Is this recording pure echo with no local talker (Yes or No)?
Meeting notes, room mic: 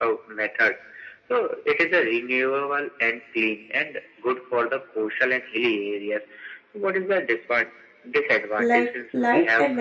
No